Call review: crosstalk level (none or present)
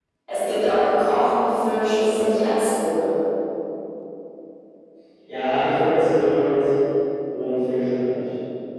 none